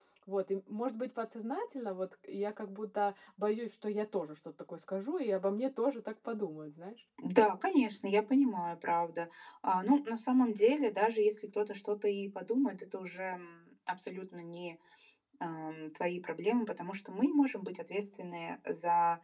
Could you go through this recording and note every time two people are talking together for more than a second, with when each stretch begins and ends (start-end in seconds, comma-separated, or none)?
none